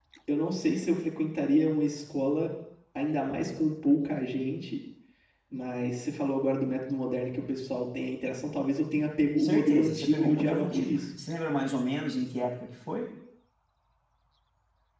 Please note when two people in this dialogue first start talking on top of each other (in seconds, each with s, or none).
9.4 s